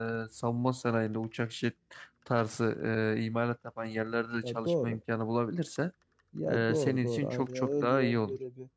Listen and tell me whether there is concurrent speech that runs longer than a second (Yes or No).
Yes